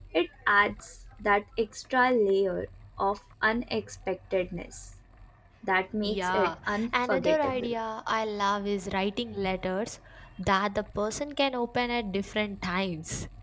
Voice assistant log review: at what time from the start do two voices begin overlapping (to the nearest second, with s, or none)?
6 s